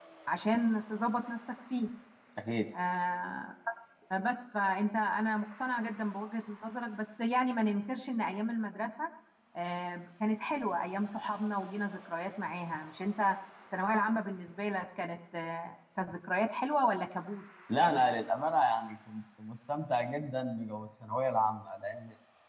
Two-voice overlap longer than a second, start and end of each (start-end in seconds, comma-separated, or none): none